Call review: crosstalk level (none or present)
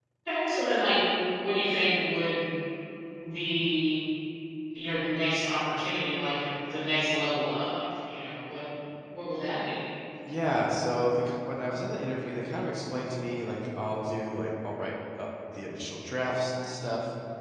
none